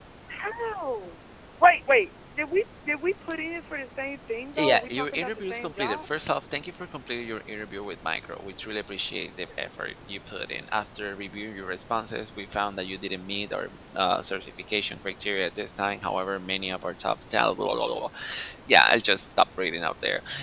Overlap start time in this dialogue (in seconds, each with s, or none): 4.6 s